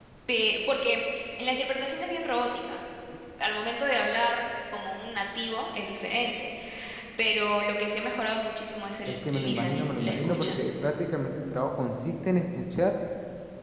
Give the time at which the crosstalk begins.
9.1 s

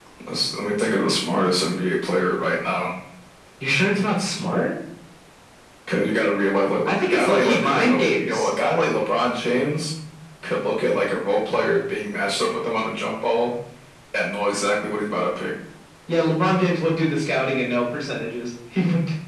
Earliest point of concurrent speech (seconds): 6.8 s

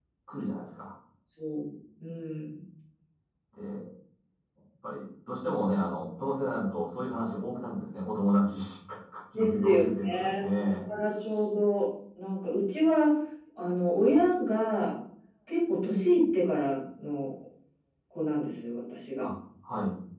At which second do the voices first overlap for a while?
9.3 s

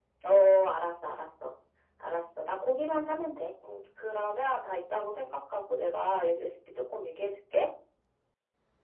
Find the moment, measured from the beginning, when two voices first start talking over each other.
none

